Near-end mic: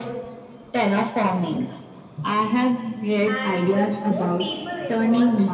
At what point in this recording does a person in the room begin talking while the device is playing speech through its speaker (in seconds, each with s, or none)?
3.3 s